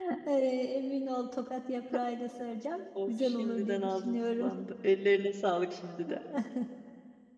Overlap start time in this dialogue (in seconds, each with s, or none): 3.0 s